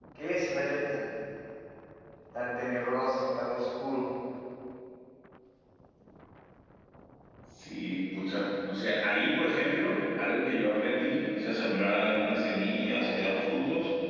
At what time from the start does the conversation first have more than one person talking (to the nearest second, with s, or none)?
none